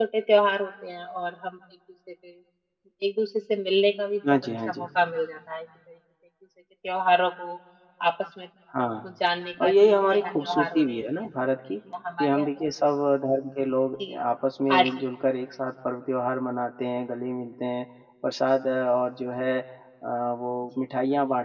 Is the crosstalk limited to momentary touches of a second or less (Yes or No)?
No